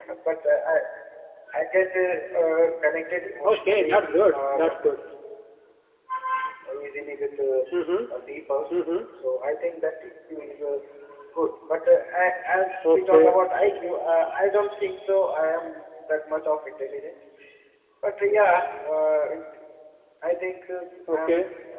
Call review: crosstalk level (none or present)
present